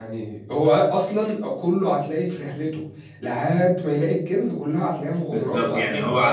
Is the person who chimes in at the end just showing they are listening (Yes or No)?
No